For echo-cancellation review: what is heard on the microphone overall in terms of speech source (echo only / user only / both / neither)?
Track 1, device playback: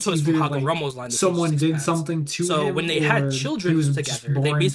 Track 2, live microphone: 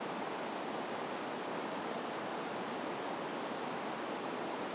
neither